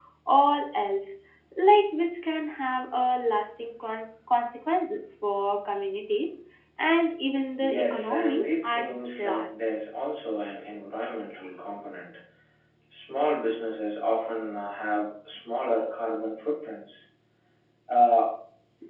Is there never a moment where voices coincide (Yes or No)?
No